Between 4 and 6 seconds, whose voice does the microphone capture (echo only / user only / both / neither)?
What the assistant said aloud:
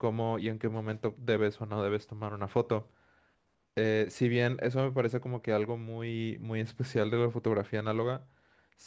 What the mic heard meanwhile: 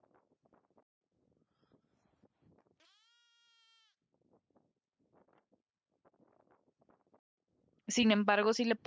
neither